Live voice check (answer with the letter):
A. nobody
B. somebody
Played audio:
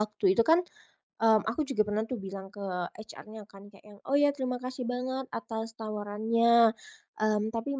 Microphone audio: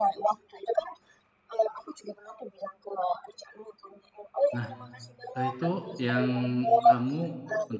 B